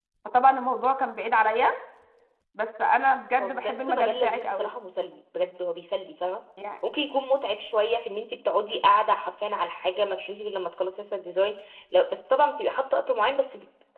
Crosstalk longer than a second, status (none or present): present